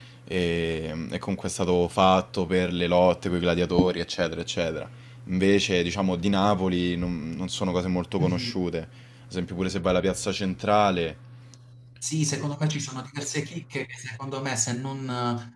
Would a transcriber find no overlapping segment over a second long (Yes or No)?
Yes